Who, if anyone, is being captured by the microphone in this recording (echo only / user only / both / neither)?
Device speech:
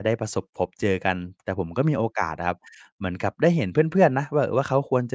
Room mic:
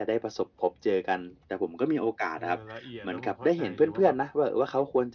both